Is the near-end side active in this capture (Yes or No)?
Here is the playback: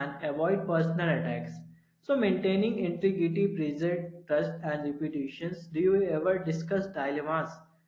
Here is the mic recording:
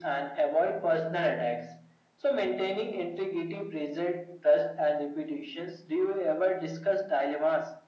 No